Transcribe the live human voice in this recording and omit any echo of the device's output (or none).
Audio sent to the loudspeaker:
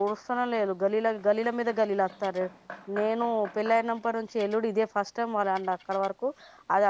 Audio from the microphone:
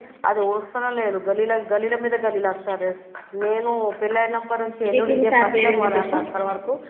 మీ సారు పేరు ఏం పేరు చెప్పు